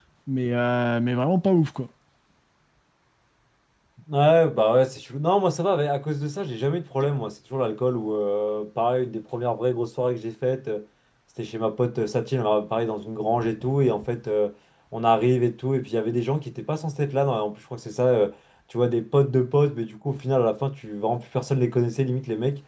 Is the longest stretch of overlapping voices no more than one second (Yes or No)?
Yes